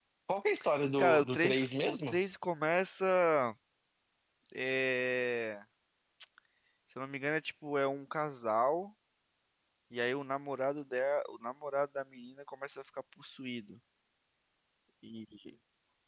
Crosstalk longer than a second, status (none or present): present